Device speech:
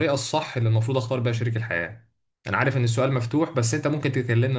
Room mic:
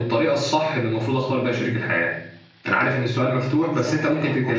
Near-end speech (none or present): present